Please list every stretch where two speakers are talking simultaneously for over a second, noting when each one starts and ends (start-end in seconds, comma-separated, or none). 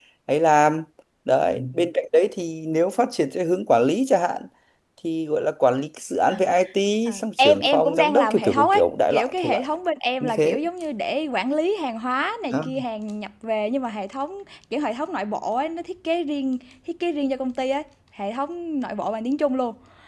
7.1-9.7